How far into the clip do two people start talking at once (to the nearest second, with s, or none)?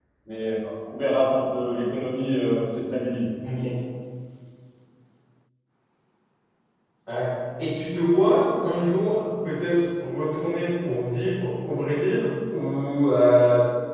none